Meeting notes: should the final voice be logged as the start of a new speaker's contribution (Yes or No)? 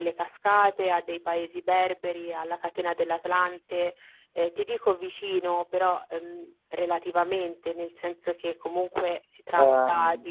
No